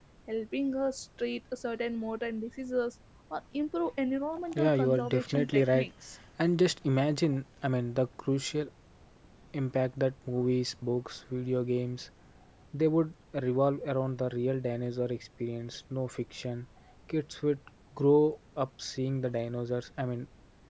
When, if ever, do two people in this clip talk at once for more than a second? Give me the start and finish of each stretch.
4.5-5.9

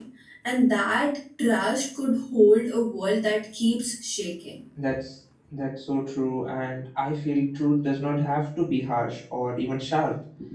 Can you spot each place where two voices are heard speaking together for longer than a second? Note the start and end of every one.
none

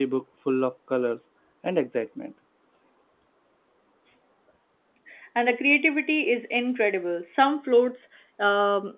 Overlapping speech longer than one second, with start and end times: none

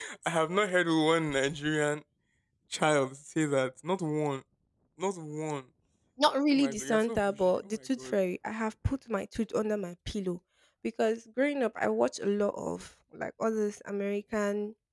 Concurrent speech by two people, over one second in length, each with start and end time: 6.5-8.1

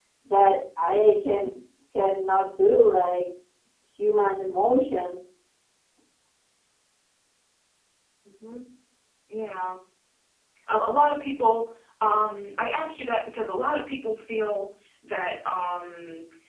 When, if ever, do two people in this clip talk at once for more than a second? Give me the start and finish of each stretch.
none

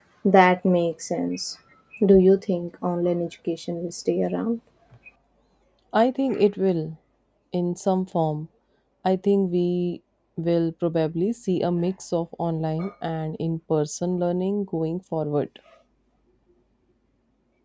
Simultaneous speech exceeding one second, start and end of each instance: none

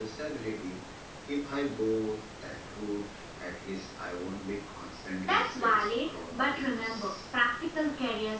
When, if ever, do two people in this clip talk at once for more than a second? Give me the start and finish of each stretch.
5.2-7.1

